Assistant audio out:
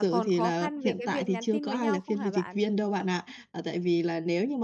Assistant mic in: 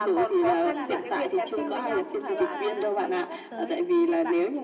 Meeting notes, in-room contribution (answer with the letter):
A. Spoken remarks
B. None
A